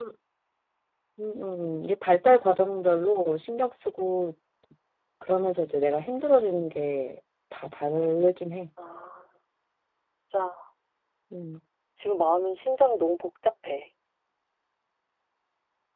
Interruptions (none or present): none